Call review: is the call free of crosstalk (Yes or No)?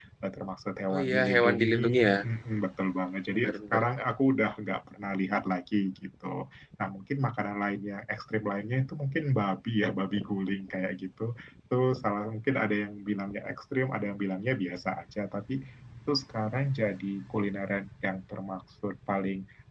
No